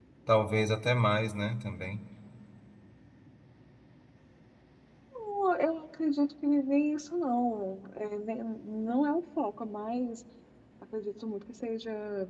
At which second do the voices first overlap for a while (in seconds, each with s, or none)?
none